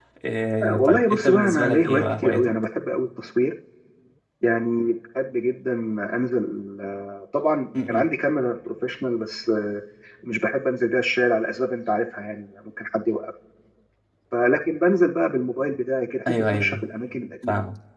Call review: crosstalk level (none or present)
present